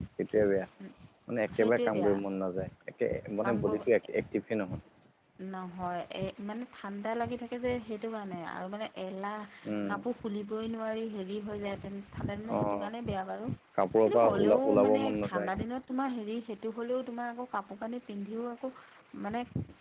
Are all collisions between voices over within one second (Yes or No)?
No